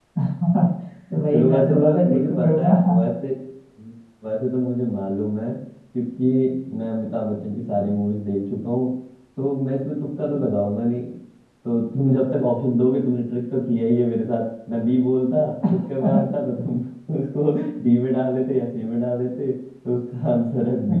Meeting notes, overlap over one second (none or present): present